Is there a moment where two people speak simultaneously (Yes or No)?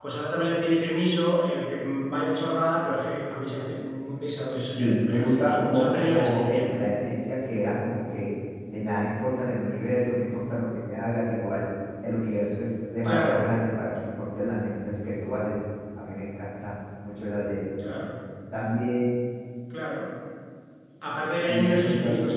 Yes